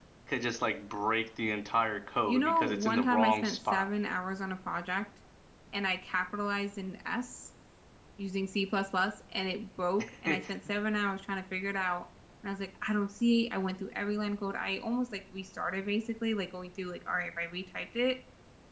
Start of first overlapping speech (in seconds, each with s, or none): 2.3 s